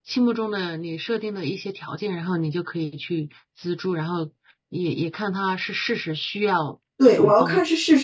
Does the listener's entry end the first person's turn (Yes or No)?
Yes